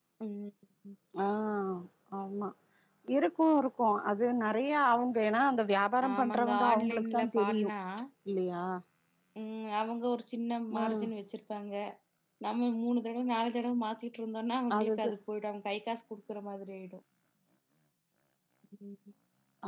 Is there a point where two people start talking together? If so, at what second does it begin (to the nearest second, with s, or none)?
6 s